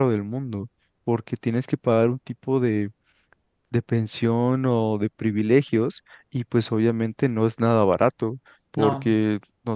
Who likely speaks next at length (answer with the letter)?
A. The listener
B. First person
B